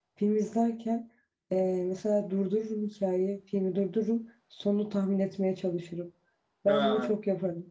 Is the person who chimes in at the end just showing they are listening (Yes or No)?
Yes